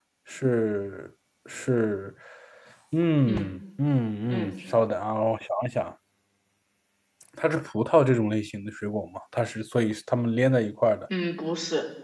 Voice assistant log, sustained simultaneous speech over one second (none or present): none